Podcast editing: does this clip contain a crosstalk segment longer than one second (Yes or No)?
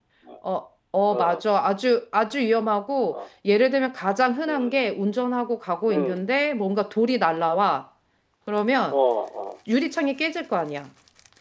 No